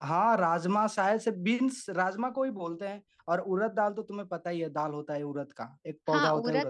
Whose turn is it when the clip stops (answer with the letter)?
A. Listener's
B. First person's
A